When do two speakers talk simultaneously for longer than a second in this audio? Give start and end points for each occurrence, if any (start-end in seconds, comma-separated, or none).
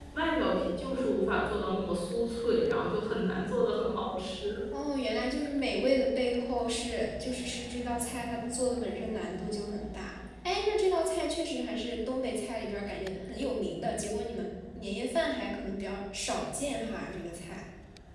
none